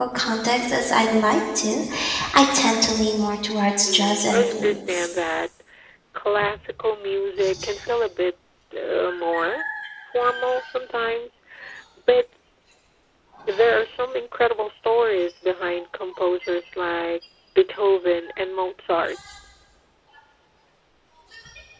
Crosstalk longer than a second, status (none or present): present